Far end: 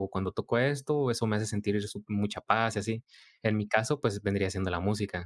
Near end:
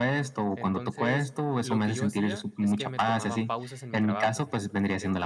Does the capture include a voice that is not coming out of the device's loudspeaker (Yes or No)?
Yes